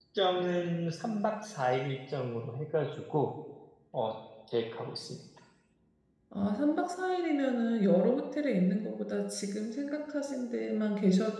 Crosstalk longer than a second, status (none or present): none